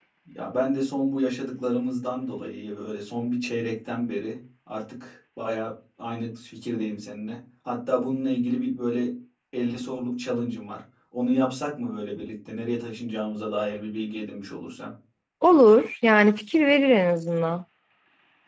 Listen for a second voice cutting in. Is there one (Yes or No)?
No